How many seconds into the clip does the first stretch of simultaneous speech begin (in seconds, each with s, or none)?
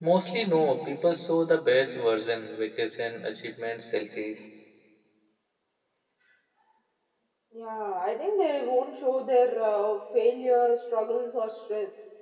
none